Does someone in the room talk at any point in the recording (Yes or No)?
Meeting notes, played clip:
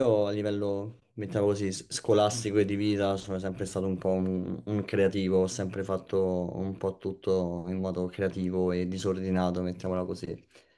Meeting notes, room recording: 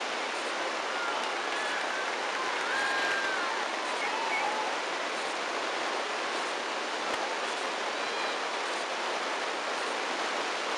No